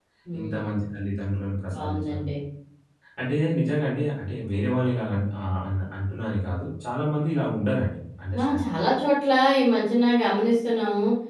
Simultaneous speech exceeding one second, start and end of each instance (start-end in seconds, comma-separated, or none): none